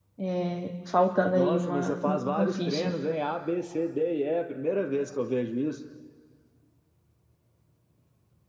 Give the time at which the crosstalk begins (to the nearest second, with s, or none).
1 s